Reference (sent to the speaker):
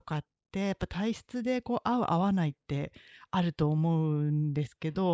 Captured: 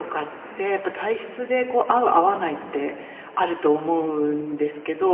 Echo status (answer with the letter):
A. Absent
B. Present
B